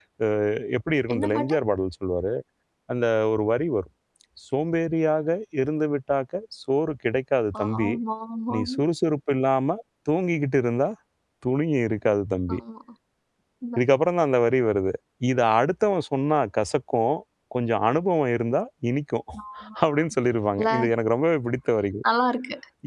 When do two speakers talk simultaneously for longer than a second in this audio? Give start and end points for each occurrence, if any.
none

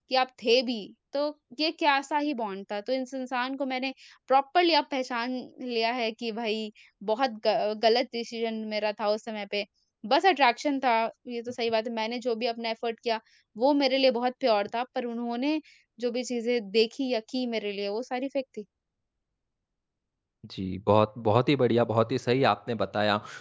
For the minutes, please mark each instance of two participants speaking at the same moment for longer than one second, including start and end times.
none

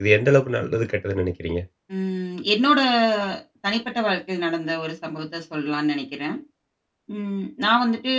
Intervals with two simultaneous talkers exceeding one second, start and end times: none

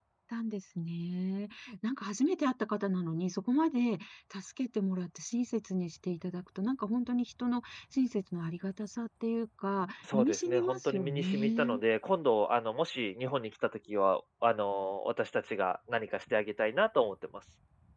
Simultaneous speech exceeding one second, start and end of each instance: 10.1-11.8

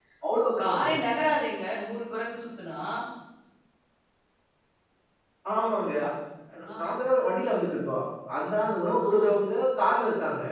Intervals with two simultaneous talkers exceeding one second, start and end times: none

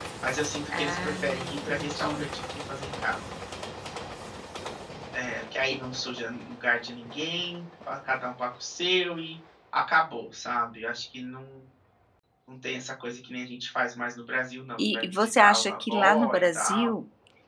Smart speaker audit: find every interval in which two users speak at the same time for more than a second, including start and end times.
0.7-2.3, 14.8-16.9

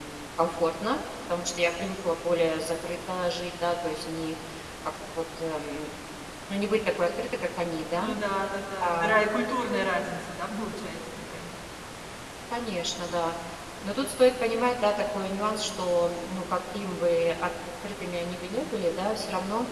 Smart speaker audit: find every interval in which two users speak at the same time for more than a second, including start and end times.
none

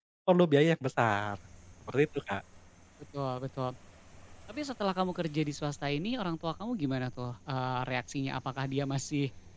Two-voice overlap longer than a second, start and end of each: none

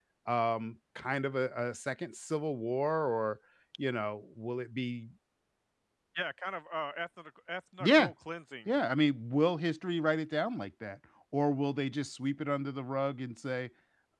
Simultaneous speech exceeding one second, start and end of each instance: none

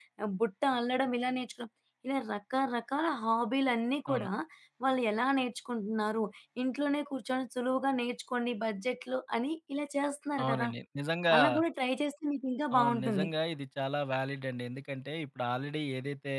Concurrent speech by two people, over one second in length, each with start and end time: none

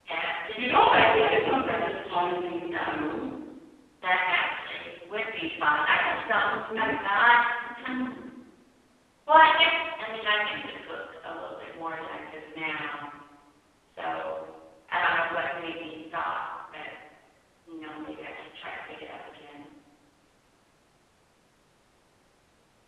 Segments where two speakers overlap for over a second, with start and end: 0.6-3.1

